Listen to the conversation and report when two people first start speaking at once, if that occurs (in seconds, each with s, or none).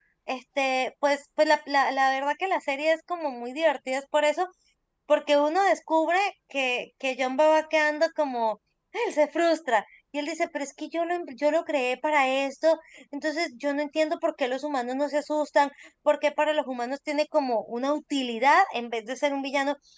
none